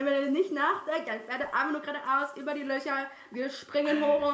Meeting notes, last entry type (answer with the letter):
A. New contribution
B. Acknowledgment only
B